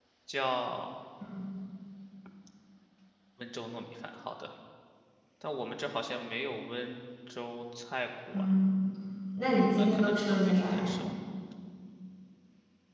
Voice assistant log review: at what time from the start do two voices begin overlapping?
9.7 s

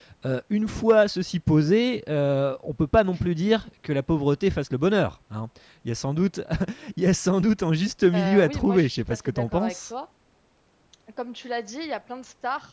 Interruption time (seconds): 8.1 s

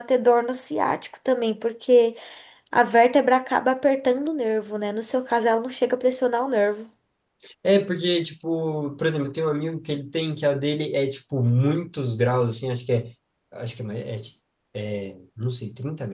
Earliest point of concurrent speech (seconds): none

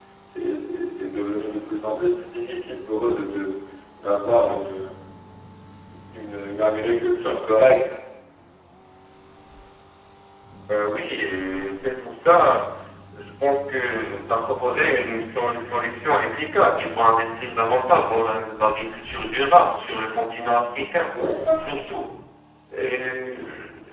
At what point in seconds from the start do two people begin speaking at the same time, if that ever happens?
none

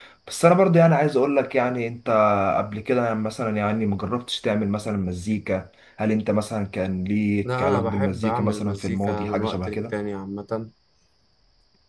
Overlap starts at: 7.4 s

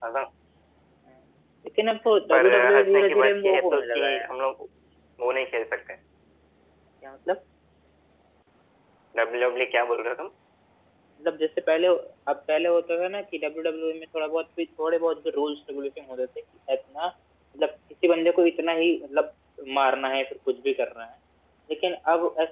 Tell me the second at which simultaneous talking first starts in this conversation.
2.3 s

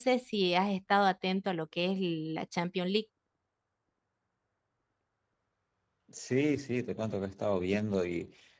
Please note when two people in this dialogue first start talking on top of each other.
none

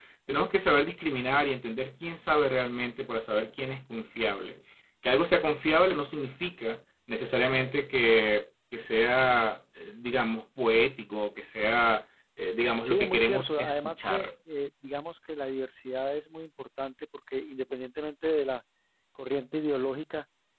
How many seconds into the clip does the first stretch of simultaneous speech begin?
12.8 s

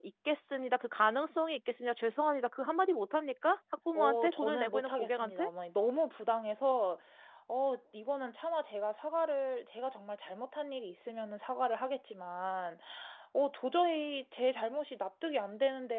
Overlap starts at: 4.0 s

